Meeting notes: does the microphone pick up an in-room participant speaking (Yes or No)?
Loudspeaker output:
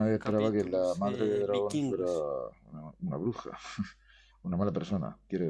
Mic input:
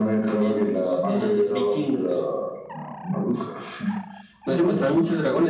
Yes